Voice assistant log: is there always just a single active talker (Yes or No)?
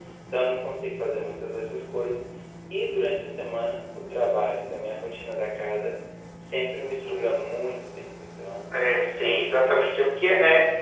No